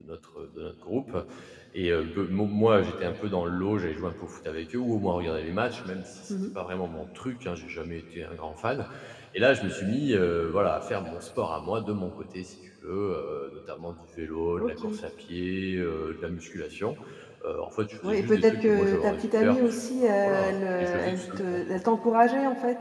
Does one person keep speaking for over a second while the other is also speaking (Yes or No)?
Yes